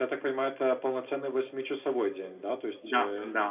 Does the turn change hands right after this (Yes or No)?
No